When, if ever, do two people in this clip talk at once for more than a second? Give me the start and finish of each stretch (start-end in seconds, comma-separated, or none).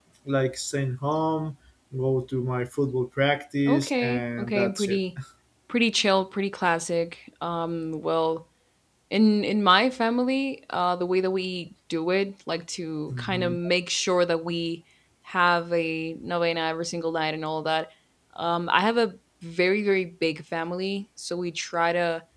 3.7-5.0